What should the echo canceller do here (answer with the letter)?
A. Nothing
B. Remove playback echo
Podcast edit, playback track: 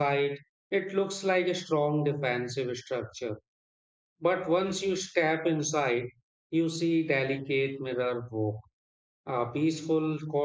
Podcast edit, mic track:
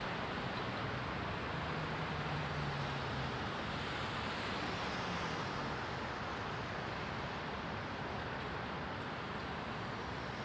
A